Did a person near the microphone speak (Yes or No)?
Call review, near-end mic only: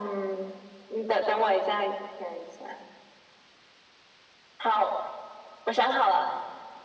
No